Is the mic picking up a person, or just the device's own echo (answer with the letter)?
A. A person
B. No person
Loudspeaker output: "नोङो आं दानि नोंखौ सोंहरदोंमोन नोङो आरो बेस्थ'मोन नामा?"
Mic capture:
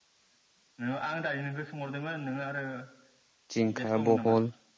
A